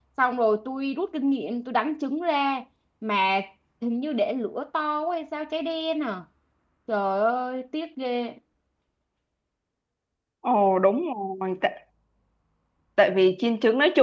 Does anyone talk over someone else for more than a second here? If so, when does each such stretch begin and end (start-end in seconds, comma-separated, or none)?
none